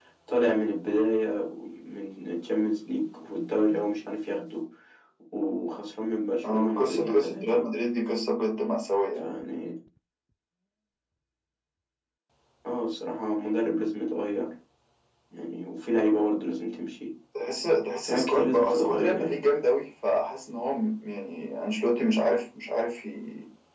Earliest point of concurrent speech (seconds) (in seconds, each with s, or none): 6.4 s